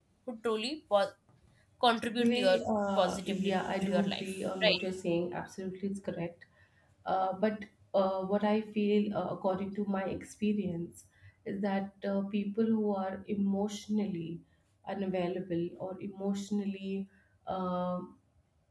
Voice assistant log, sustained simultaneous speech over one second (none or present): present